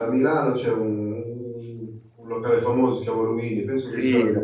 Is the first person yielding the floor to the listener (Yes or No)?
Yes